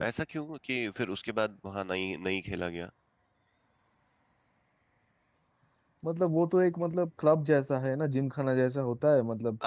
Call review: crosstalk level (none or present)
none